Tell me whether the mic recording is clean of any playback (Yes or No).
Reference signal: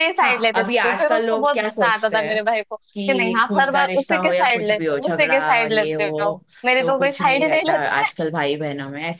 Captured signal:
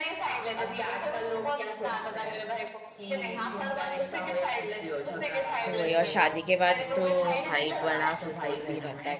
No